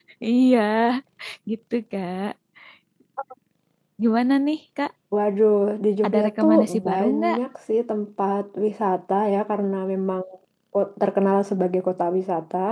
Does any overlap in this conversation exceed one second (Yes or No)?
Yes